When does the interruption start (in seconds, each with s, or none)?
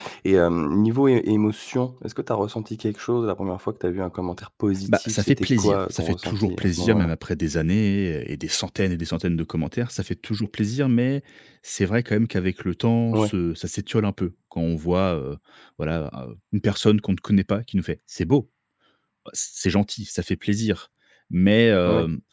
4.9 s